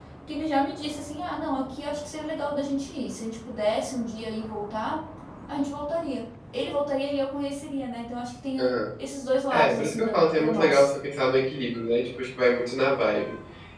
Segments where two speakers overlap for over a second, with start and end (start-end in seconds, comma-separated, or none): 9.5-10.9